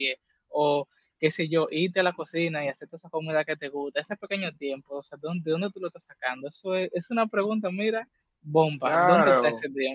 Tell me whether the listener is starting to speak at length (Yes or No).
Yes